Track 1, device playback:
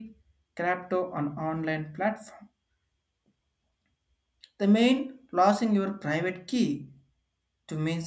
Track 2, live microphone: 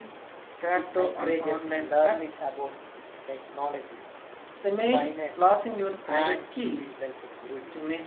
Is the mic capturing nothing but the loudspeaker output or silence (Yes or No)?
No